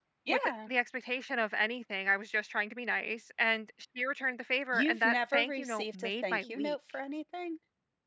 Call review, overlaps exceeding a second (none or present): present